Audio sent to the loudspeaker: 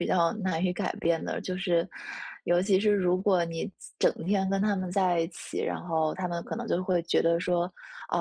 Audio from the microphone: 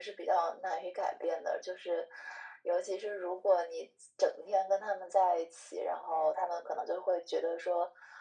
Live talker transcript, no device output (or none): none